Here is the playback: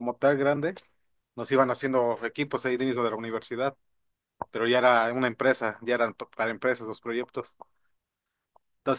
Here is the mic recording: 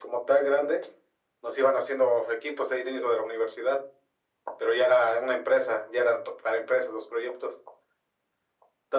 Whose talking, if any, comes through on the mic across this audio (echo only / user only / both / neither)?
echo only